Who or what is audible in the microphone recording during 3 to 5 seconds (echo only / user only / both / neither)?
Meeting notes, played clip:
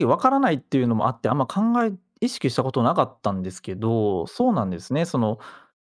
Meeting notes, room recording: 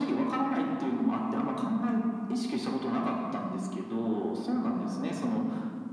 echo only